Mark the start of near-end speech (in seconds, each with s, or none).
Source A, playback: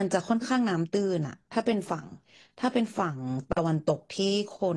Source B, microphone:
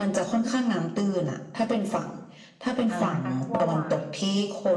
2.9 s